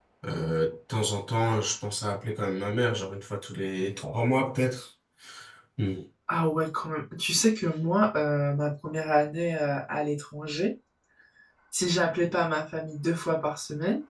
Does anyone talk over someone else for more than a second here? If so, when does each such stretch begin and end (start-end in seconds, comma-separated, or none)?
none